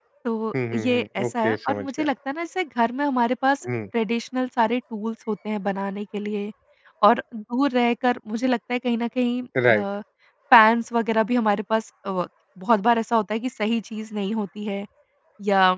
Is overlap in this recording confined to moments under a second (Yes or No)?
No